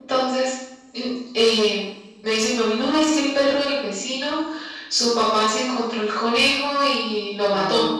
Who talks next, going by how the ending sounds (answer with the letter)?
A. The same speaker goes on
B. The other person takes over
A